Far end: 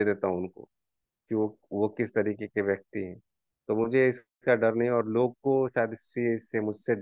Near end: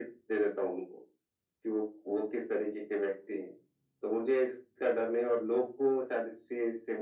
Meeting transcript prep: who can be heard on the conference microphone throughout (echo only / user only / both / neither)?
echo only